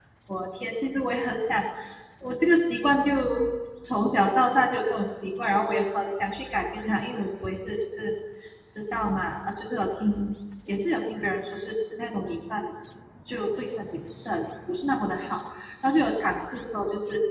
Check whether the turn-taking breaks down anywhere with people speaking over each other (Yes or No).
No